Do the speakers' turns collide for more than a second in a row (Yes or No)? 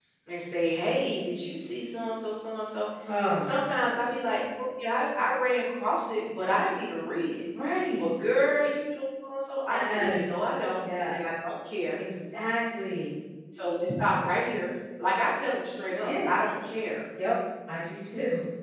No